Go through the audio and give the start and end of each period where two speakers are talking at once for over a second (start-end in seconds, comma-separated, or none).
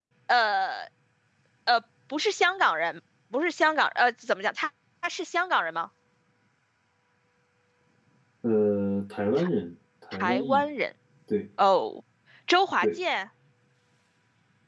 none